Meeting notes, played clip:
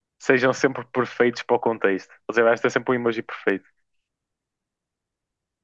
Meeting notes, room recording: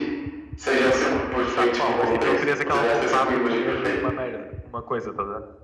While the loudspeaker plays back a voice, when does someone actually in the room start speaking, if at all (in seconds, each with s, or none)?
1.0 s